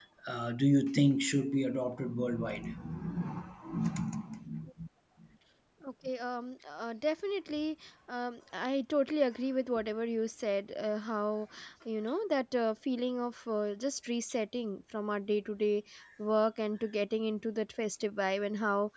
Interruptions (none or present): none